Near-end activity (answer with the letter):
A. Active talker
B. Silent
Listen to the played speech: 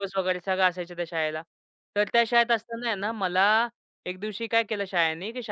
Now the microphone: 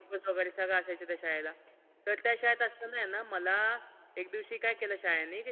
B